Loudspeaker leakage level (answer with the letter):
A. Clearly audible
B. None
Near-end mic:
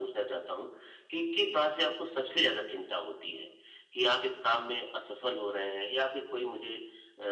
A